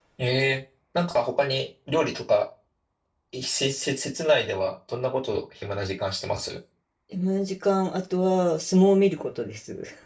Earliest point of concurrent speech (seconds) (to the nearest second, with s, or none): none